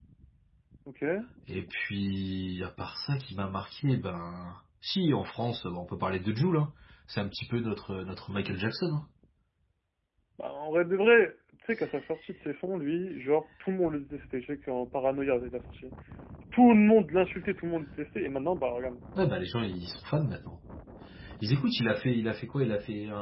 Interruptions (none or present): none